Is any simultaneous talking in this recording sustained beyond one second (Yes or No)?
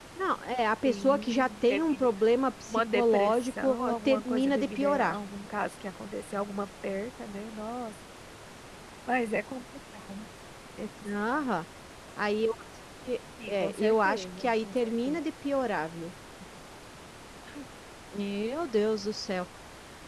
Yes